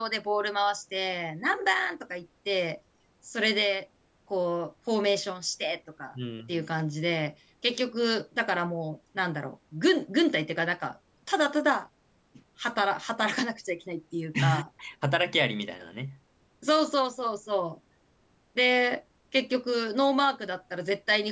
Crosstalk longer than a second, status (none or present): none